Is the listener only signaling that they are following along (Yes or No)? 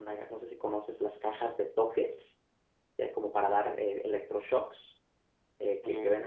No